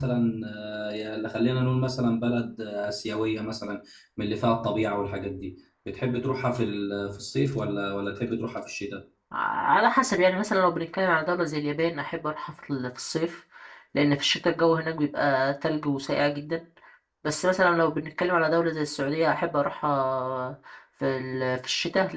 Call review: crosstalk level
none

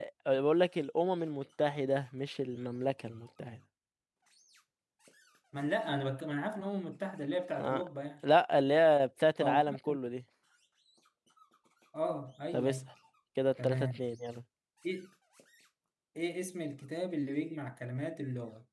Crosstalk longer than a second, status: none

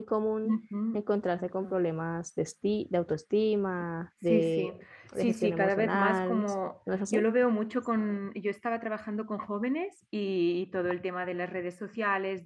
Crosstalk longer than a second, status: present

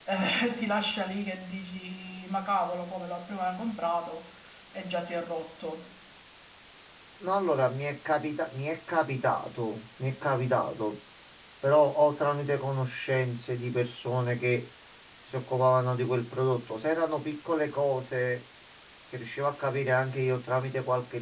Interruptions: none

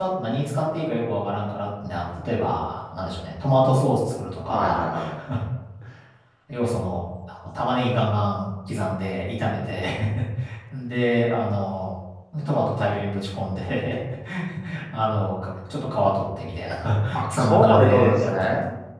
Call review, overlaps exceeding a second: present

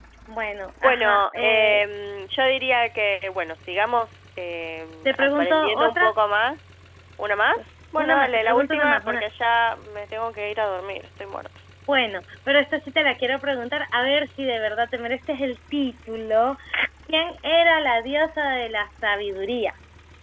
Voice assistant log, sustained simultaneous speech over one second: present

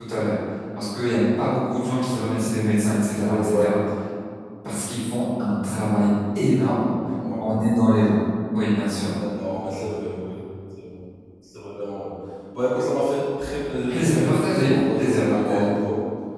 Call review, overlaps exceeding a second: present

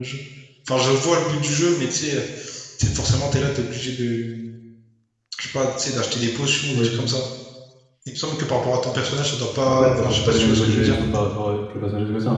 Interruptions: present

